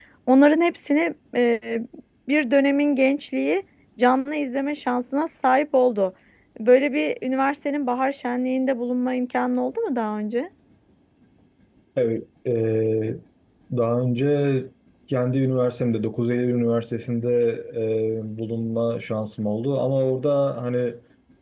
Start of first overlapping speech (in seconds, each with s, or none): none